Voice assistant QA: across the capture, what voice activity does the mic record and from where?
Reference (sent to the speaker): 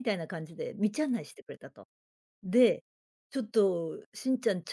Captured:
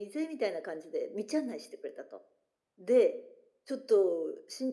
echo only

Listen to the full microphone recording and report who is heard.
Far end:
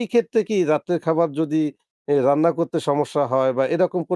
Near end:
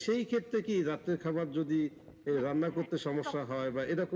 both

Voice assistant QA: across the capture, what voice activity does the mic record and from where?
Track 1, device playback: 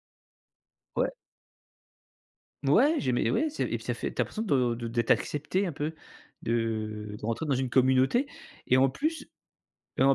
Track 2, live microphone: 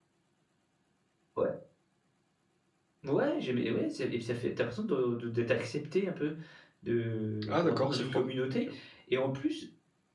both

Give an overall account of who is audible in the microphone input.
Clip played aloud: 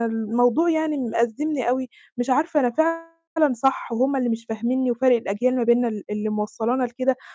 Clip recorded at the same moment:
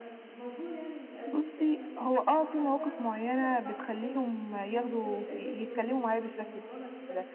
both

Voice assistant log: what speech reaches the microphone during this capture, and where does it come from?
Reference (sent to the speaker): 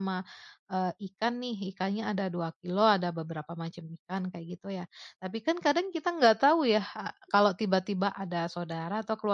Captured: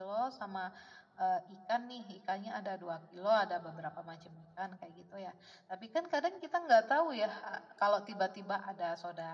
echo only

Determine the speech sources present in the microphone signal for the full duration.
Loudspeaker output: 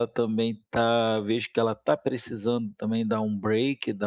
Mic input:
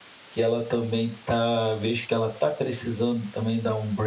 echo only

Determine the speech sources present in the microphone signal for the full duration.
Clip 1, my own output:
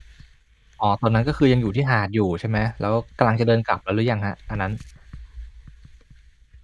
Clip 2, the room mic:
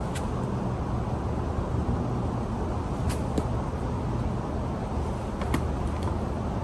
neither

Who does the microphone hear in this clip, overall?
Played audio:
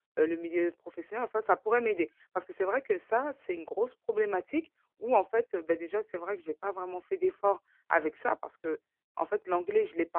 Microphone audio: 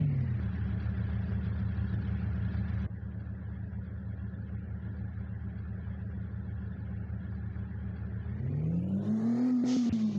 neither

